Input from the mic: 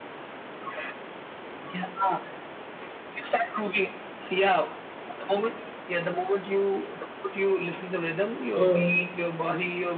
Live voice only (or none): mm